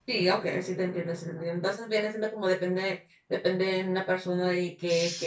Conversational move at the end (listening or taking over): listening